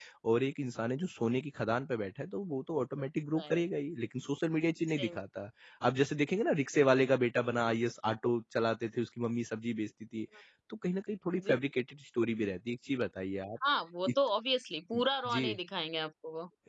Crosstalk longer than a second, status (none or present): none